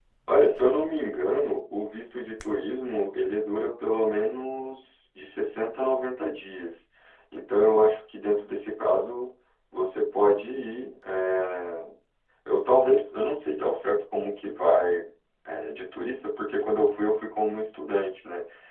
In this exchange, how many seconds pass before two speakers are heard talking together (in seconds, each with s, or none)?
none